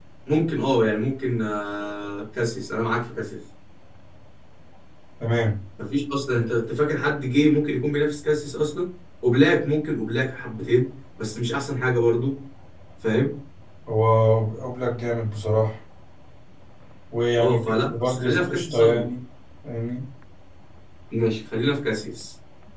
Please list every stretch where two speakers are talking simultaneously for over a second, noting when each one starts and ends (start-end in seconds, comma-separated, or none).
17.4-19.1